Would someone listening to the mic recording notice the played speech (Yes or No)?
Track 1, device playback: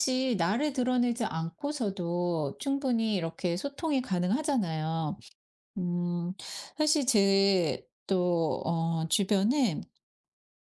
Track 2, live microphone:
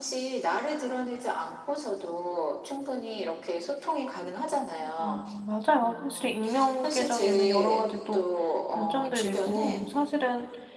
Yes